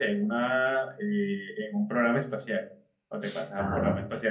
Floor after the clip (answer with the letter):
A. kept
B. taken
A